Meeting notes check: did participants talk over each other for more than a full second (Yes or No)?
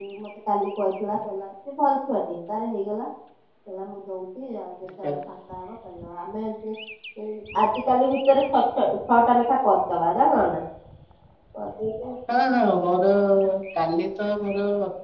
No